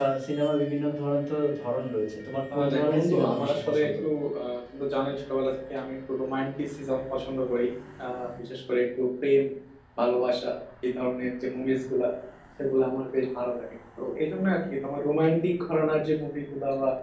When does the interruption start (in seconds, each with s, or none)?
2.5 s